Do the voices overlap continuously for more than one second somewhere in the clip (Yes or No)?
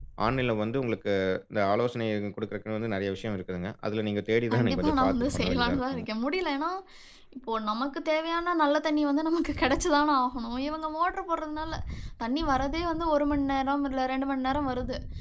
Yes